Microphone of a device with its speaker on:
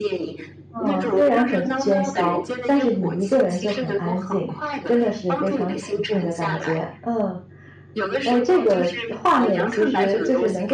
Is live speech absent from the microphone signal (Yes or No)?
No